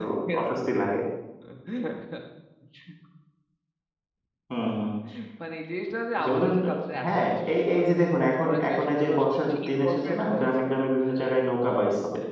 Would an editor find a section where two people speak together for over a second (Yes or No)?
Yes